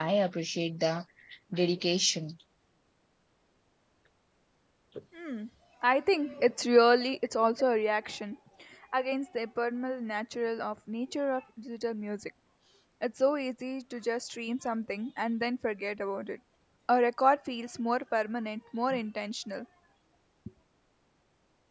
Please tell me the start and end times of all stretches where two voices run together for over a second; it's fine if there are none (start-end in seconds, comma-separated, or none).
none